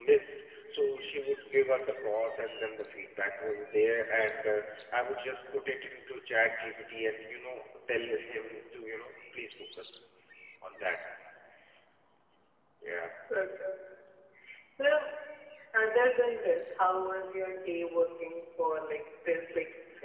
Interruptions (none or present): none